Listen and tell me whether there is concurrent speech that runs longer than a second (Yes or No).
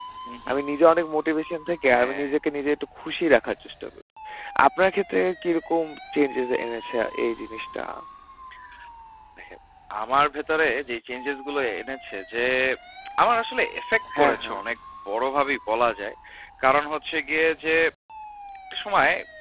No